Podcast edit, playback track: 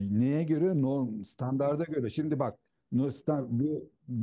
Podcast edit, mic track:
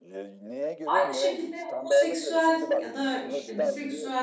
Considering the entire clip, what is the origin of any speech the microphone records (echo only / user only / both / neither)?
both